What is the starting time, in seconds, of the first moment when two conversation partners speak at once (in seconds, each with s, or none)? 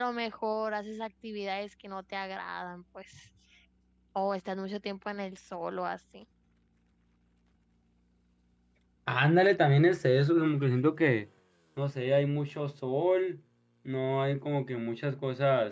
none